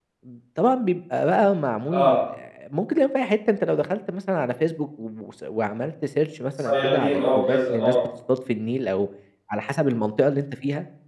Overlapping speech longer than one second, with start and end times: 6.6-8.0

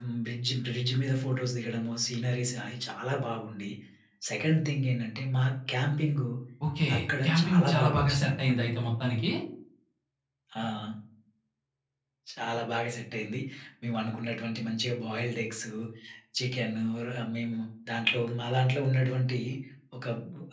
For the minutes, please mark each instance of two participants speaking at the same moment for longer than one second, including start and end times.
7.2-8.5

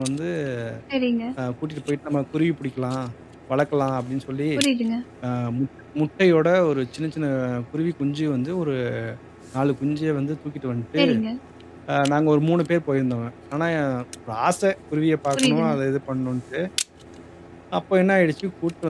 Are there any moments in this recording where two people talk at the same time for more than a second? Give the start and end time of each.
none

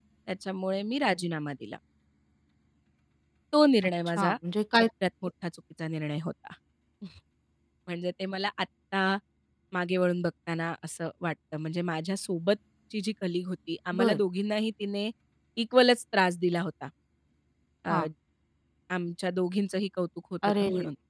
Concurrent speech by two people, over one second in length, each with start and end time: none

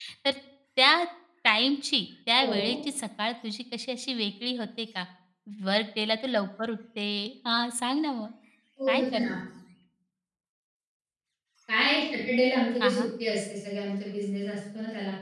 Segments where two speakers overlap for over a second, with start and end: none

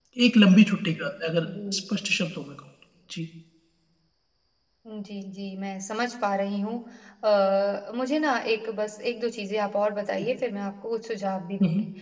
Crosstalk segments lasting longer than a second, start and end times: none

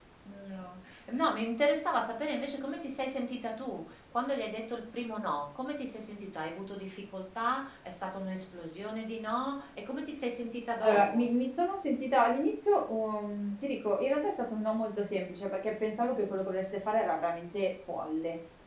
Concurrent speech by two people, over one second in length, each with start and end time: none

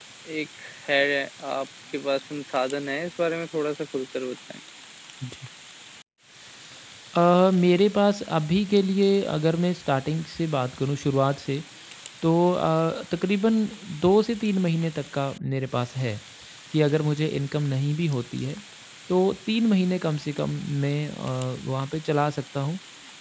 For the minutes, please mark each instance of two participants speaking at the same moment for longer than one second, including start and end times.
none

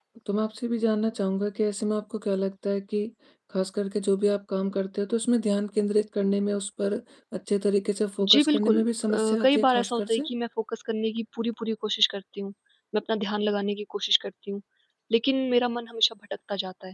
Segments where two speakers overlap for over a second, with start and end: 8.2-10.3

